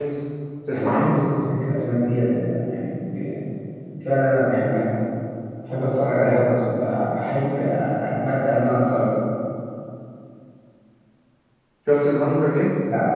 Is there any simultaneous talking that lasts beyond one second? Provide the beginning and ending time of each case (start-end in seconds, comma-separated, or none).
none